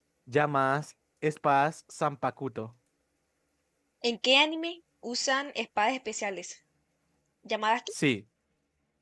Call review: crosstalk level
none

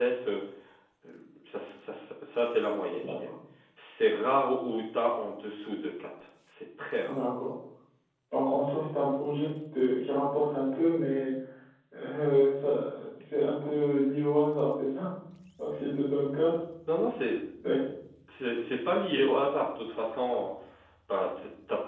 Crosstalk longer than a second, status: none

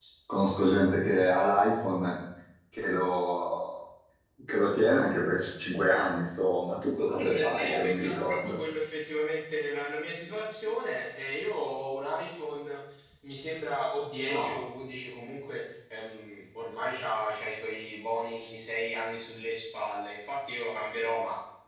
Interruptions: present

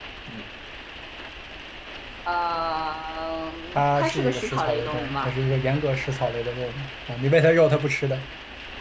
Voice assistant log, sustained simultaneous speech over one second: present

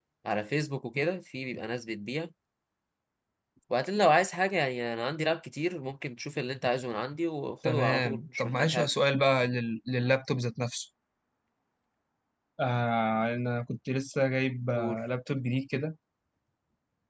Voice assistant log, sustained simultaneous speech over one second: present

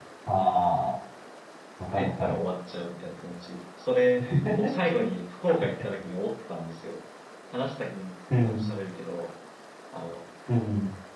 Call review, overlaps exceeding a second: none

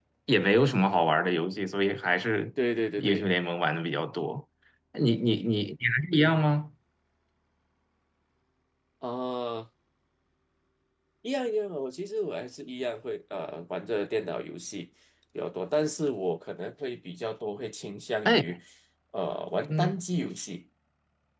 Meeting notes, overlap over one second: none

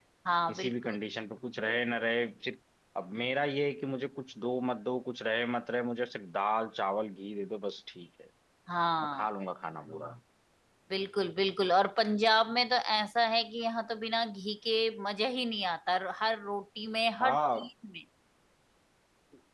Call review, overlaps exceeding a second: none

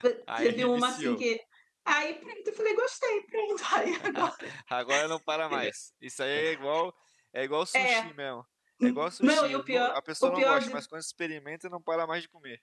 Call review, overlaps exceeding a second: present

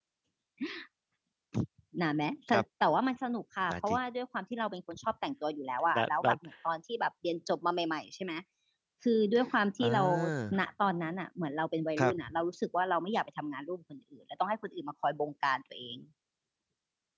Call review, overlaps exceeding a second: none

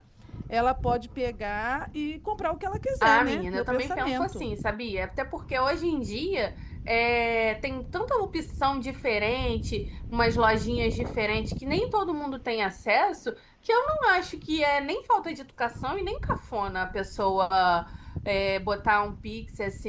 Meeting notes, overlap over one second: present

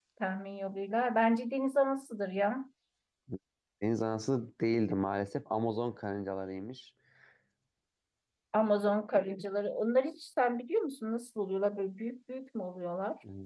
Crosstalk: none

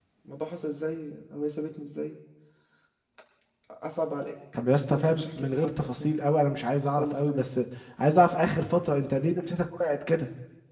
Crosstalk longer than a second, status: present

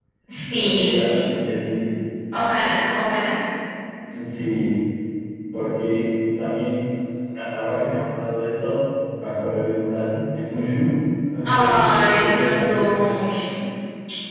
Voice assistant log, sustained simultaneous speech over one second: present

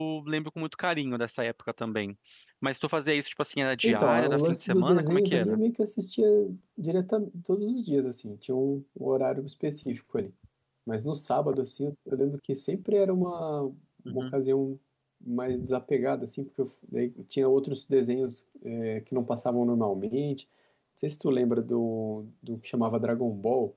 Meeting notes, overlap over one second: present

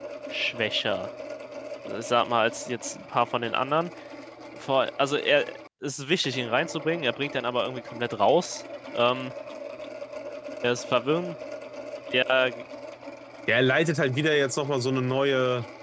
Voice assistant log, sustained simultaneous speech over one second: none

